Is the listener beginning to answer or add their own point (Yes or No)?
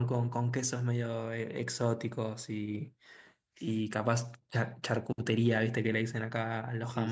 No